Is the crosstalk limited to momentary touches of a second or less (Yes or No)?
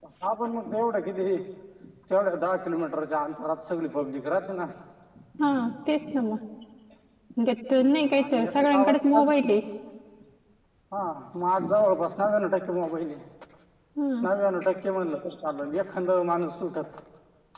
No